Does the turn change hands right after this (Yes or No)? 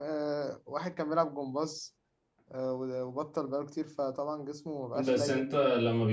Yes